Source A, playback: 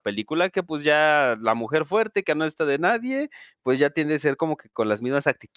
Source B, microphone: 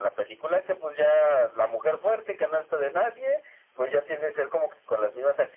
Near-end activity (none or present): none